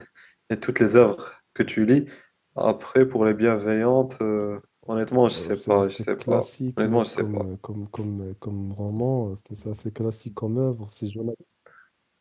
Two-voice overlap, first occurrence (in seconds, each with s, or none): 5.2 s